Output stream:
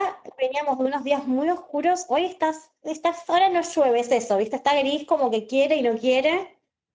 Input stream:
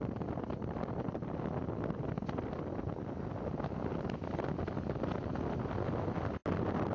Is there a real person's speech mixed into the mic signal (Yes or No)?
No